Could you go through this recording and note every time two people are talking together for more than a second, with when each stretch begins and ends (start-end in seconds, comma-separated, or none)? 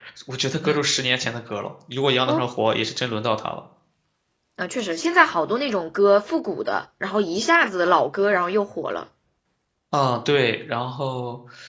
none